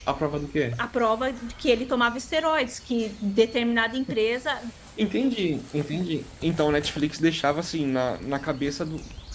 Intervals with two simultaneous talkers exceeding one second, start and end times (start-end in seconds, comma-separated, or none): none